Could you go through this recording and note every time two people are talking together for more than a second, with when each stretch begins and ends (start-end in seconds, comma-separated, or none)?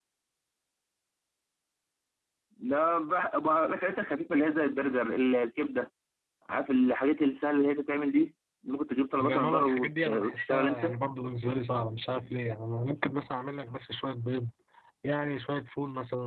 9.2-10.9